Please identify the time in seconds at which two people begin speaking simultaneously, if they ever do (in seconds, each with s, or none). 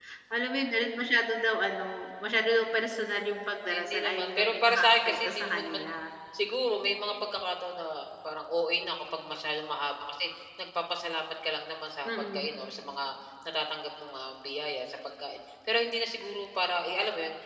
3.6 s